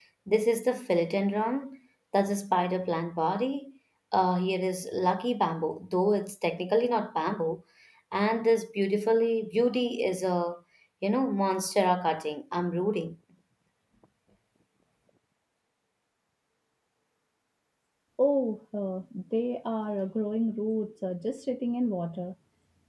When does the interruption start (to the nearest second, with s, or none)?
none